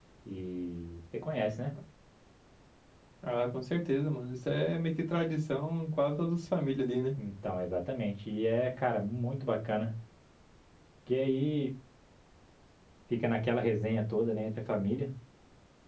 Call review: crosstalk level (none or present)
none